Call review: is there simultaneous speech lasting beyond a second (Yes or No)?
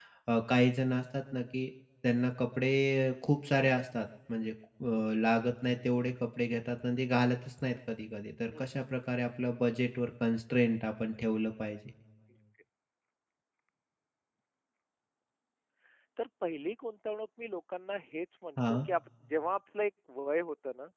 No